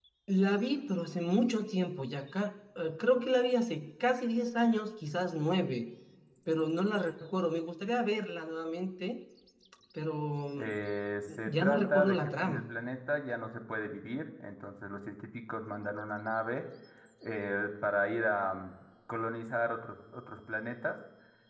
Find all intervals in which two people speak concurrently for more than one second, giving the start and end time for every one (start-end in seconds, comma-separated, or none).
11.5-12.7